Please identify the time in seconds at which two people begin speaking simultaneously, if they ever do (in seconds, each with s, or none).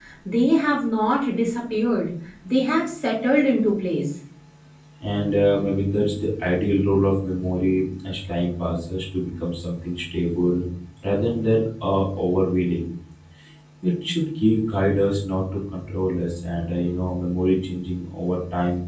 none